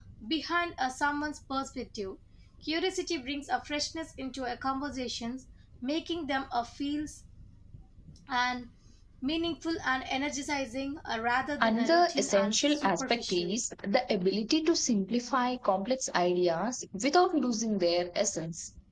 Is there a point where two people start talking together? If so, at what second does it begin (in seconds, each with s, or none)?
11.6 s